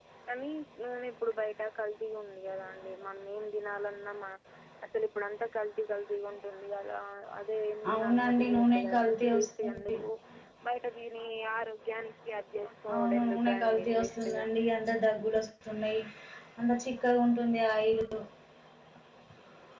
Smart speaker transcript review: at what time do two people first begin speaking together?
8 s

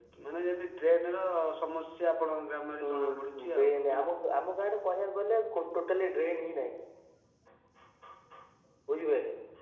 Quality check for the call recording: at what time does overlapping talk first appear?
3 s

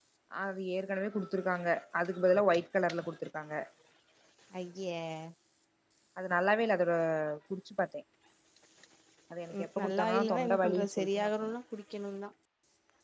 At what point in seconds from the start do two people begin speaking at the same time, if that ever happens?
10 s

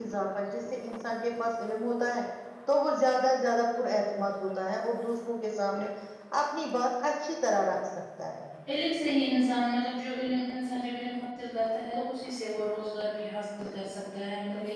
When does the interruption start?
none

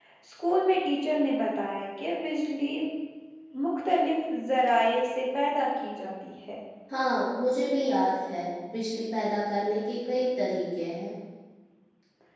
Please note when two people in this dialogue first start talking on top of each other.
none

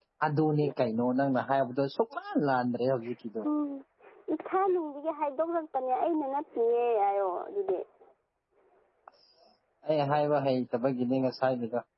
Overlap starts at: none

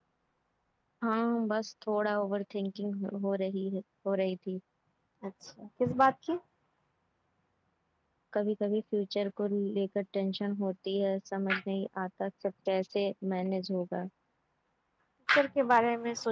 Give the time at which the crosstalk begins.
none

